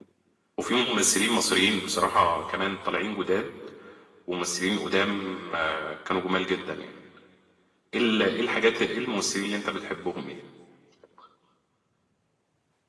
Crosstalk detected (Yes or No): No